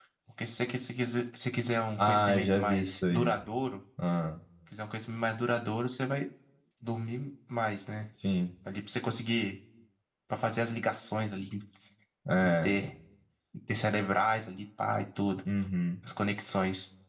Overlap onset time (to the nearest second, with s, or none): 2 s